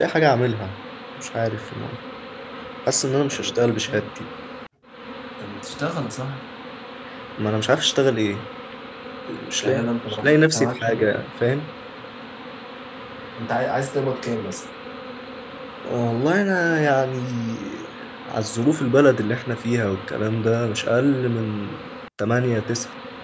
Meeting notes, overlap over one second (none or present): present